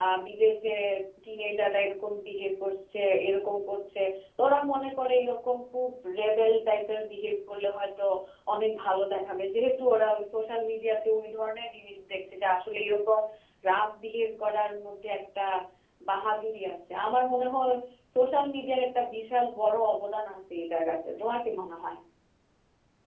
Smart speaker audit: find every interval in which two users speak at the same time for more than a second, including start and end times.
none

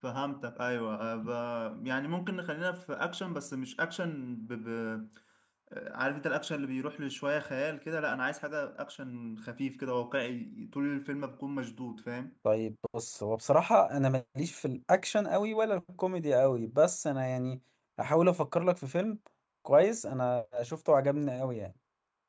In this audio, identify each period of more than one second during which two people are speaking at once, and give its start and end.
none

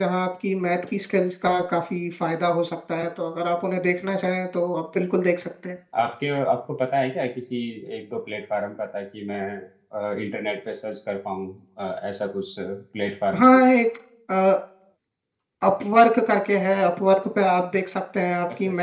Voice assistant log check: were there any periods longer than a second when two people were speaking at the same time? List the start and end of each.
none

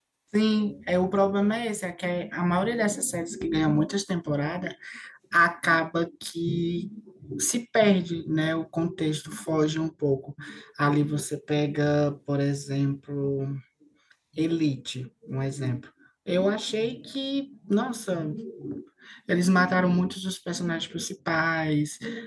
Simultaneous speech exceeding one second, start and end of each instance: none

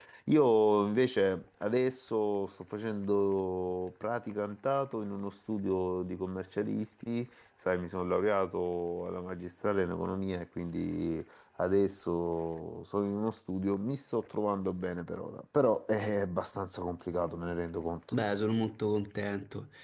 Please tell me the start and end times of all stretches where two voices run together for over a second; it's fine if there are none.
none

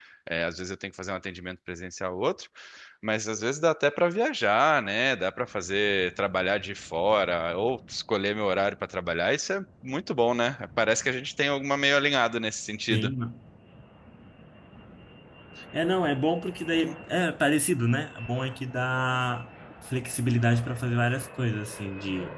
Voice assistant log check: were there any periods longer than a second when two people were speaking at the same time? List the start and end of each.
none

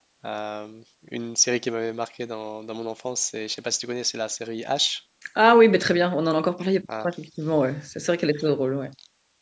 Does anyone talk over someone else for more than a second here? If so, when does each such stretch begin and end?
none

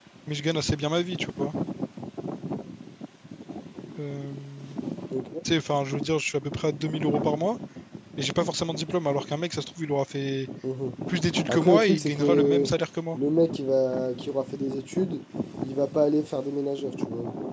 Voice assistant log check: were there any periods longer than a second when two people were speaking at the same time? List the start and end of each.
11.5-12.7

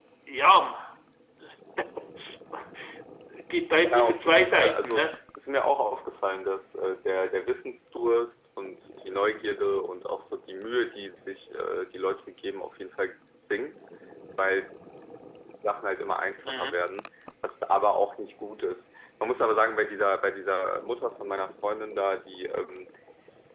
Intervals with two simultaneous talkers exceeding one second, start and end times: 3.8-5.1

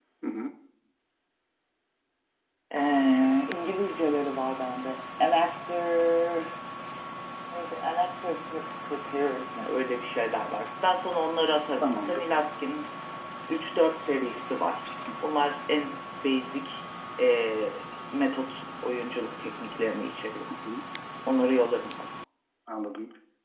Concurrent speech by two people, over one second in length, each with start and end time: none

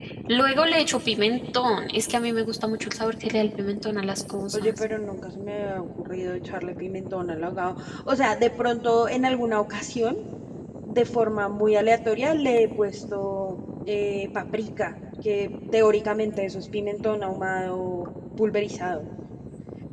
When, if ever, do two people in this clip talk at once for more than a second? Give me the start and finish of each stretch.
none

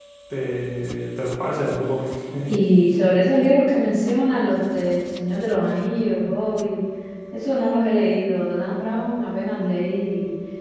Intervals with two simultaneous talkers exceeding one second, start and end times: none

